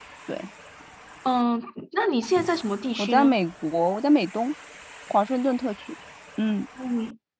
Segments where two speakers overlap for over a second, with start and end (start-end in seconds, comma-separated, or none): none